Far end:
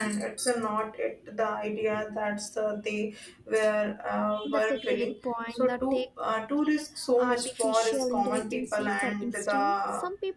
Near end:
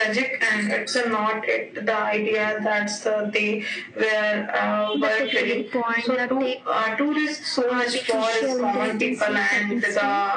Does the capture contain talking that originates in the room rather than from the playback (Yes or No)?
No